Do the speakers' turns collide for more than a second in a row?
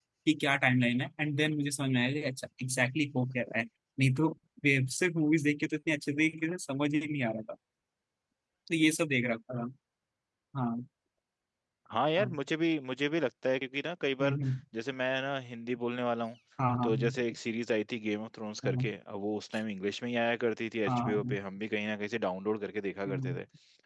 No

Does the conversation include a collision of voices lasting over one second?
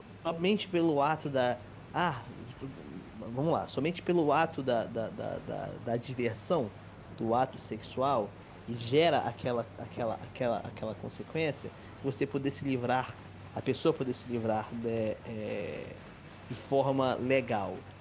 No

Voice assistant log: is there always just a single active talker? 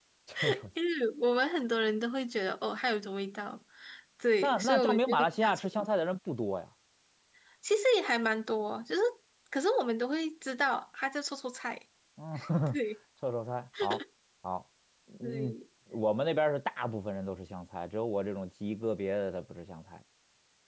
No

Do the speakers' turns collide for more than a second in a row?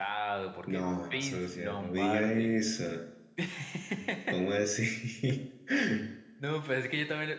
Yes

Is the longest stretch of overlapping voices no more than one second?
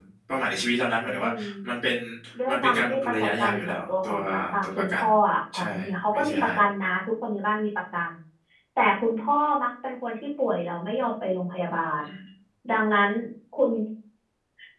No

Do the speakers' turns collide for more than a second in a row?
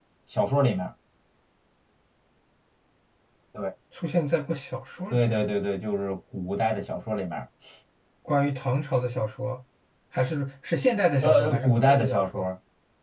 Yes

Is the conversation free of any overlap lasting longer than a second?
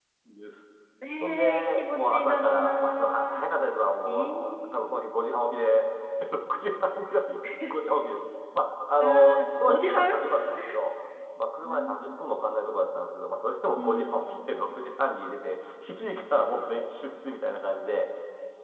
No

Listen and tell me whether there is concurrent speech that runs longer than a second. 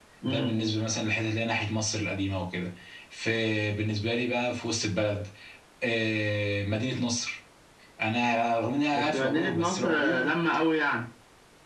Yes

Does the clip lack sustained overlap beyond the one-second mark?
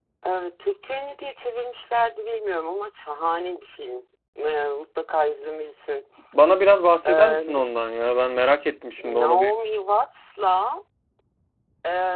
Yes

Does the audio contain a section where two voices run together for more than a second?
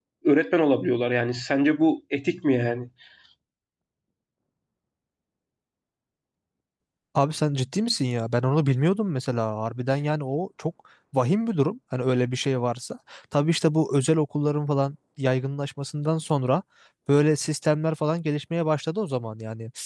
No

